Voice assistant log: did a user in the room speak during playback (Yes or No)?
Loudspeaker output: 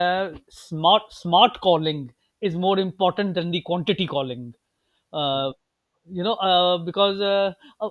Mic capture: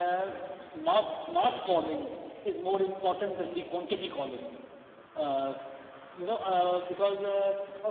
No